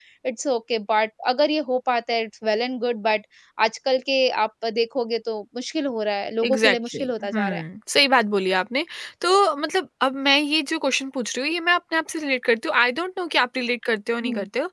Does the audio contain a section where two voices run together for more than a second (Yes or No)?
Yes